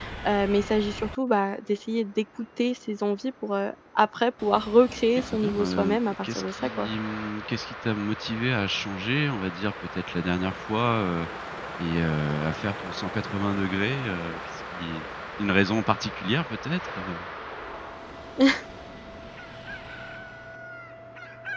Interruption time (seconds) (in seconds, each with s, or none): 5.3 s